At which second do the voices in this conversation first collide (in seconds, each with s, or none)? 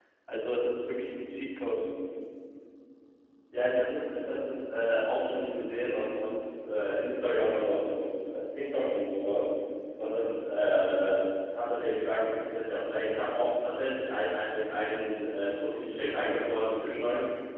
none